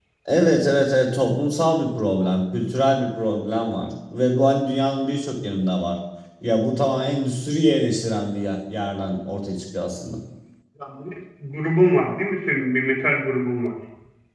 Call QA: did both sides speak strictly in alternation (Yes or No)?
Yes